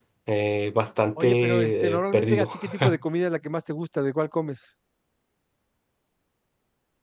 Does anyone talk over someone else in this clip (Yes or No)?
Yes